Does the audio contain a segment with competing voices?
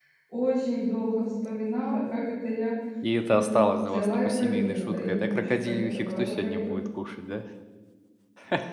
Yes, from 3.3 s

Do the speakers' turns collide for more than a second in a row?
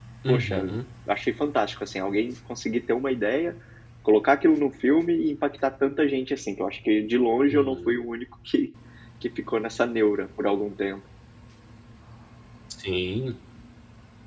No

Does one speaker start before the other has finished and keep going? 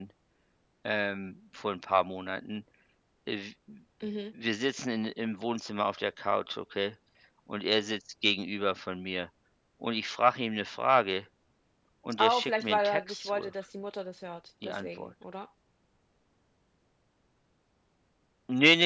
Yes, from 12.2 s

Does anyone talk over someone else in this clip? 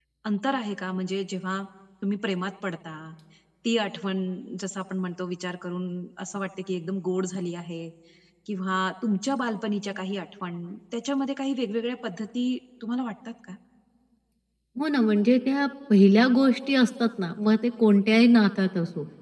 No

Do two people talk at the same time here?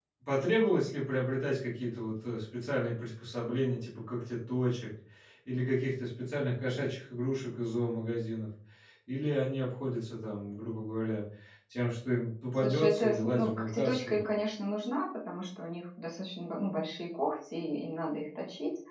Yes, from 12.5 s

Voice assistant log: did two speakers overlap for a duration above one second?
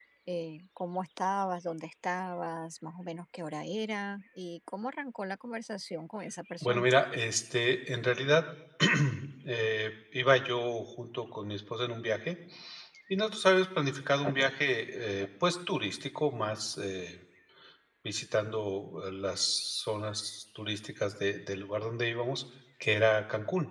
No

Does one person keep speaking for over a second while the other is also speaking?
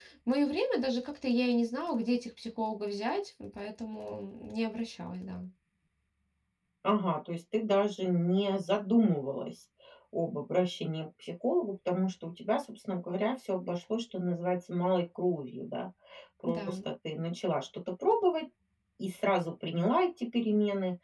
No

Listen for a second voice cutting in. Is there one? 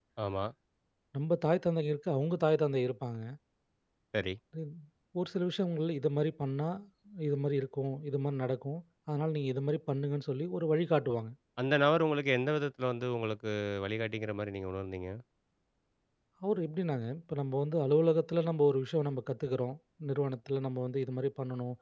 No

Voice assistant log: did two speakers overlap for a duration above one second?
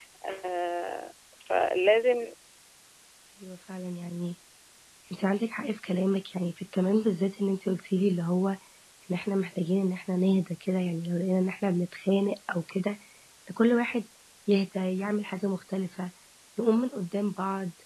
No

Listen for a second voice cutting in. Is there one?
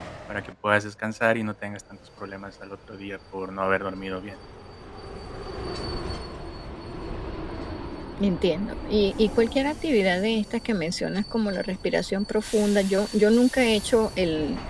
No

